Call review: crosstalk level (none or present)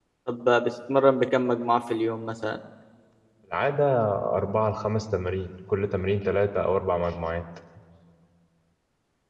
none